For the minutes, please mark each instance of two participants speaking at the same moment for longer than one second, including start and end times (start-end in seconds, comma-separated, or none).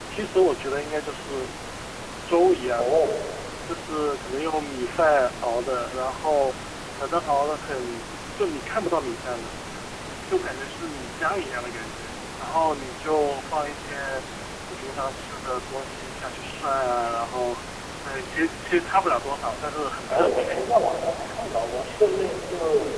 none